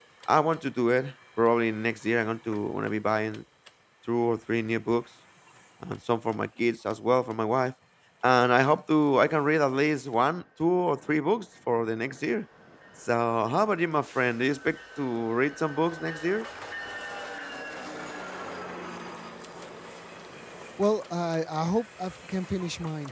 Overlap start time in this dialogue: none

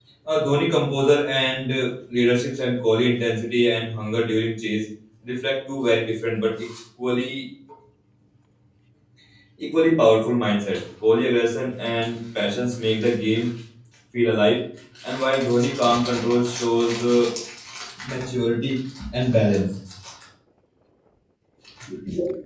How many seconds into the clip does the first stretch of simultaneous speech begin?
none

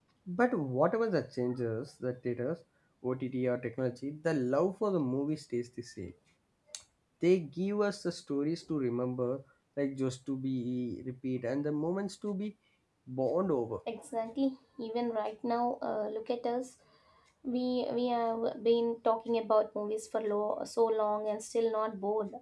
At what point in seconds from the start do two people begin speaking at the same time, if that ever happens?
none

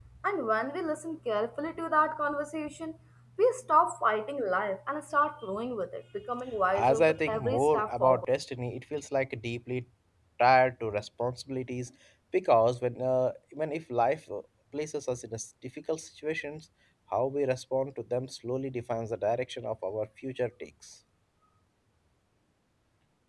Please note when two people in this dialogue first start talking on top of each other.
7 s

